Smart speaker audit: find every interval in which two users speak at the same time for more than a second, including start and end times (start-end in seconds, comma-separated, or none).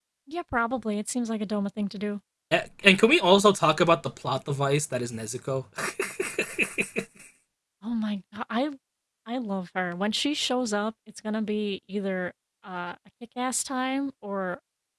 none